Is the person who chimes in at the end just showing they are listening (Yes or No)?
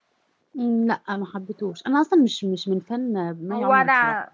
No